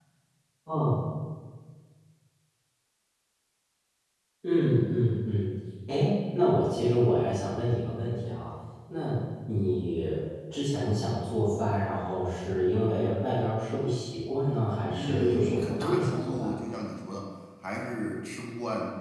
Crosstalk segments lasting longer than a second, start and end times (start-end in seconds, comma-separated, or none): 14.9-16.5